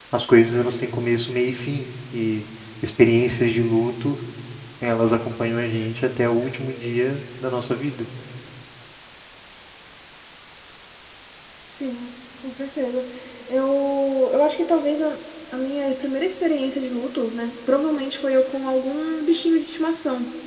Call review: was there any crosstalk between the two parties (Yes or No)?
No